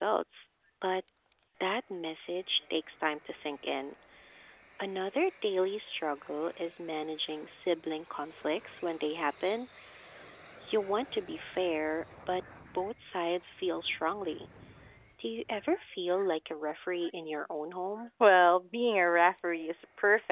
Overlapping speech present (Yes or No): No